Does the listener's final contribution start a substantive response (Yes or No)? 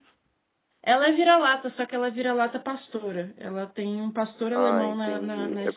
Yes